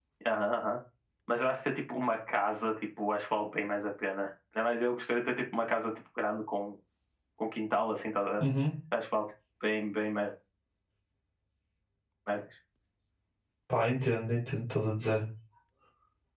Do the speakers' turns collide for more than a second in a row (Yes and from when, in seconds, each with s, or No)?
No